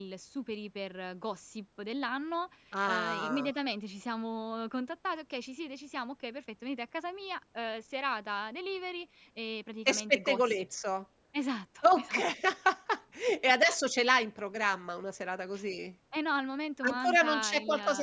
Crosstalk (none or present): present